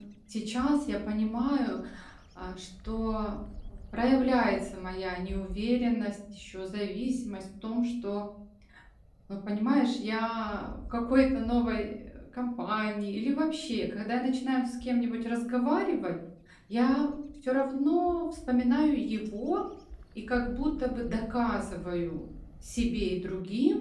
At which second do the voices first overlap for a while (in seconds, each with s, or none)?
none